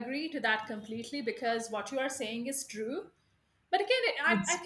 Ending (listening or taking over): taking over